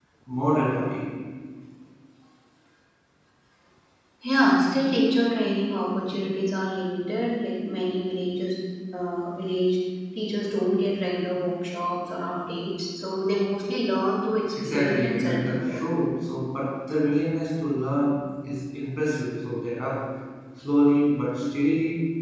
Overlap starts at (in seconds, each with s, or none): 14.5 s